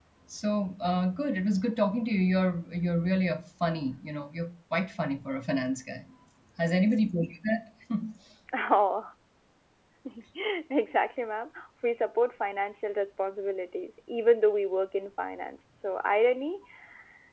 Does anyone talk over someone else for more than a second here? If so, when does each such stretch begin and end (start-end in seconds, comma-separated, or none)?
none